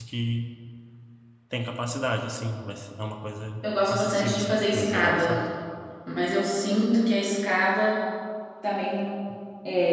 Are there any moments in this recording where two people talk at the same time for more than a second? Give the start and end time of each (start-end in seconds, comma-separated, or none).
3.6-5.3